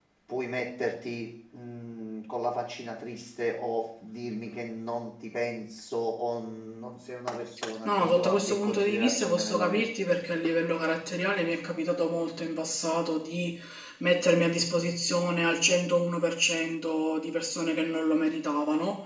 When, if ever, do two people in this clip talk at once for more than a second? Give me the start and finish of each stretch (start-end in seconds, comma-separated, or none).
7.8-9.9